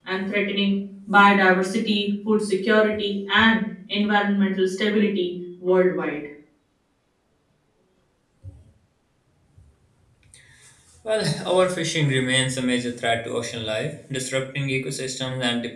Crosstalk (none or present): none